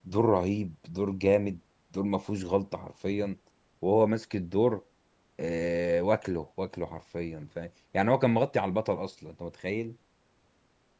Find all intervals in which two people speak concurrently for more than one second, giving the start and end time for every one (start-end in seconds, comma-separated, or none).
none